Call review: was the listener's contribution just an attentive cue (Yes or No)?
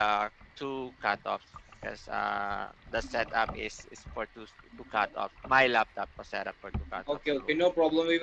No